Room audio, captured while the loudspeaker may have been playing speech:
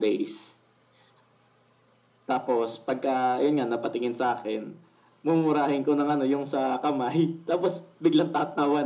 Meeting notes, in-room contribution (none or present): none